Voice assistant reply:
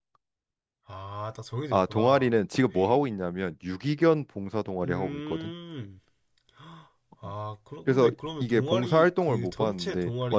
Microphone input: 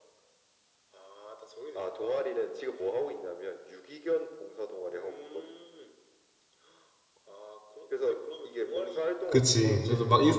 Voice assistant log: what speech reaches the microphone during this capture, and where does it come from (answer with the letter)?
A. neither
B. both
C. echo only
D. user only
B